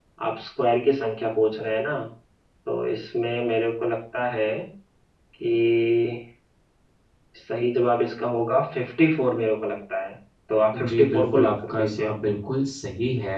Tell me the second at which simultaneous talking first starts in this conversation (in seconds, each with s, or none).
10.9 s